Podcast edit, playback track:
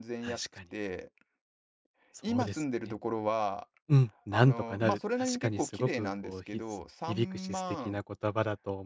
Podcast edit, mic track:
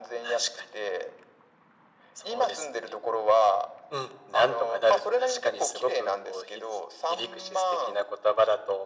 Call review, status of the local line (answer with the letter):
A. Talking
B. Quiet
B